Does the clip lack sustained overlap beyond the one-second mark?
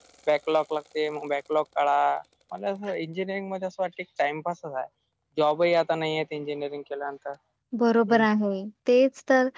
Yes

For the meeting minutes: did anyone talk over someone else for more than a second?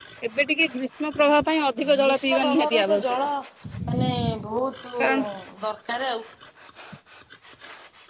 Yes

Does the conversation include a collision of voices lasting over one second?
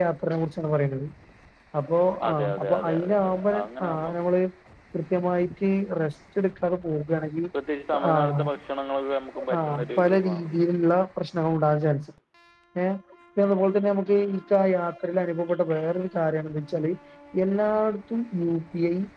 Yes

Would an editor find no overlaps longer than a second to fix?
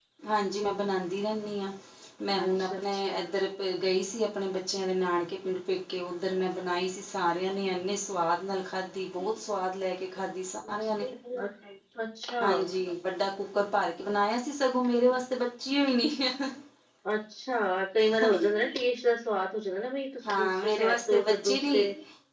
No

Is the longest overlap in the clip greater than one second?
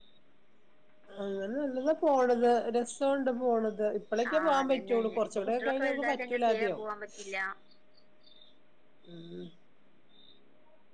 Yes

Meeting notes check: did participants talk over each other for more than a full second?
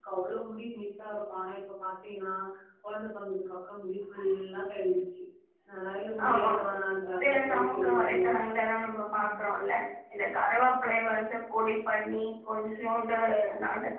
Yes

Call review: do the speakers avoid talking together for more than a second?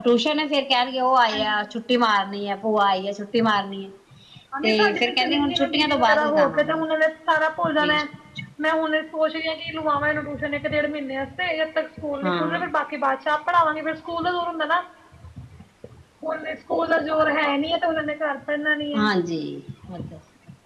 No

